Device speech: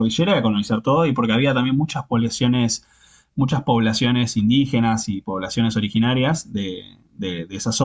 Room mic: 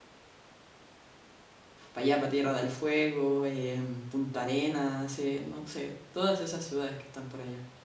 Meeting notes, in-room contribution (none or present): present